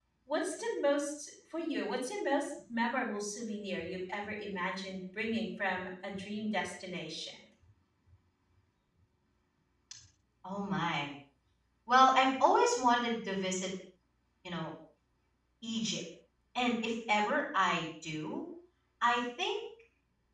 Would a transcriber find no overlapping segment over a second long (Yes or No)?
Yes